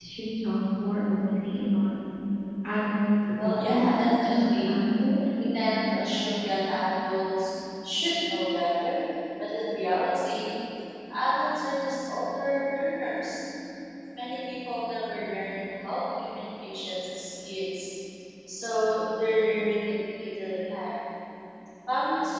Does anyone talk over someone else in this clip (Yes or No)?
Yes